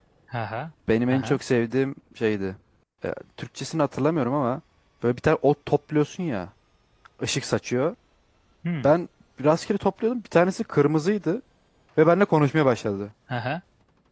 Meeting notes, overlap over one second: none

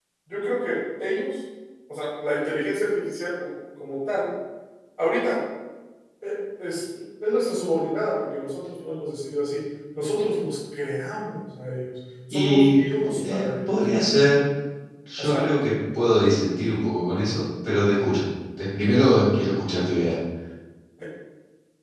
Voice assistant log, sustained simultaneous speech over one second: present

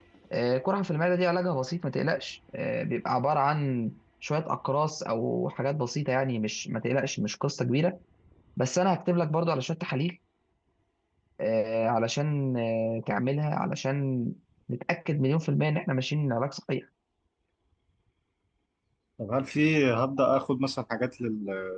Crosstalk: none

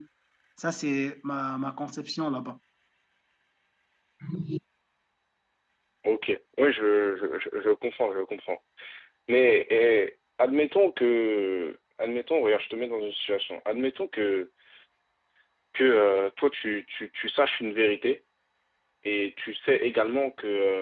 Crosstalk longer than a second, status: none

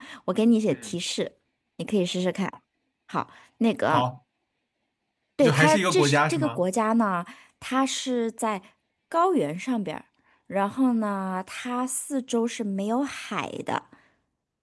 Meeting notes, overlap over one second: present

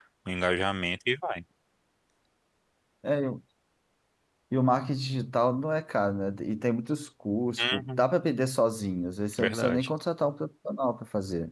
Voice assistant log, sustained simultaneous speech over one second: none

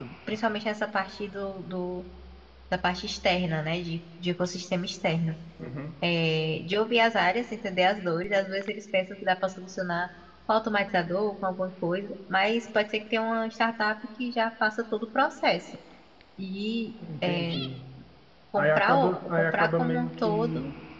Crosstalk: present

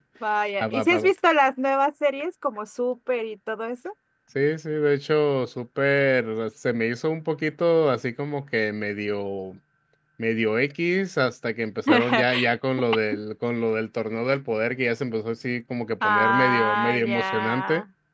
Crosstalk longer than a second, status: present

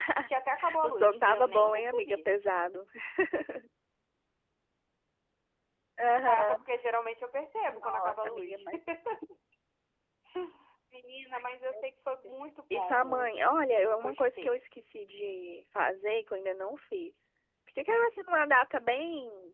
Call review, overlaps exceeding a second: present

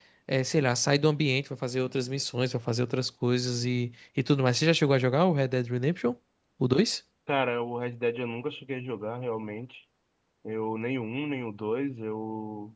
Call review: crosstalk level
none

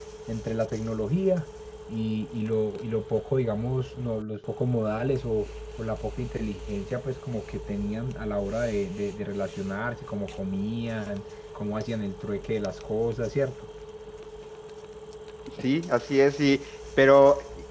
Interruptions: none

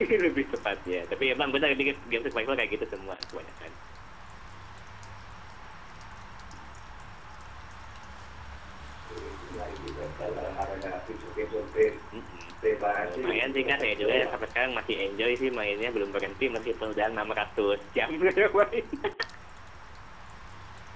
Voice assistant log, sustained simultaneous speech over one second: present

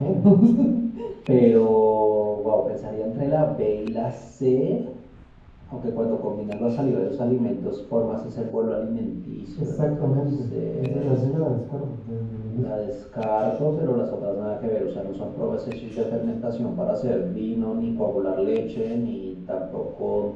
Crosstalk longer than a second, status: present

